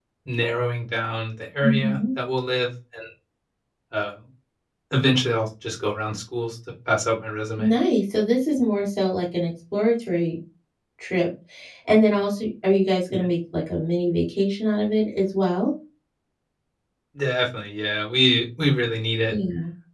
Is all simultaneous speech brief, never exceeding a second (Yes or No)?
Yes